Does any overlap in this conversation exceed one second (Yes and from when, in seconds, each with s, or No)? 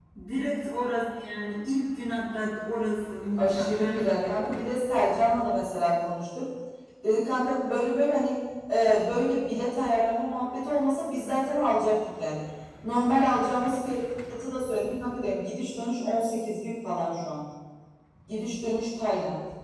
Yes, from 3.4 s